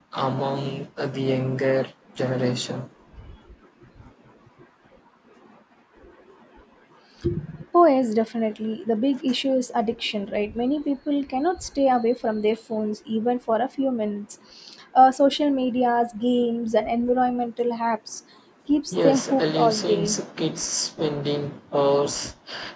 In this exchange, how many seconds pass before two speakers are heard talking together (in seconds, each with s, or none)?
18.9 s